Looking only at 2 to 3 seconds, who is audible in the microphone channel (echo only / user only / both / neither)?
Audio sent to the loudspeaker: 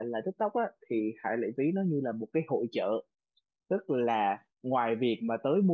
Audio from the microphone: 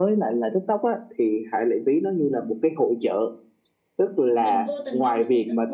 echo only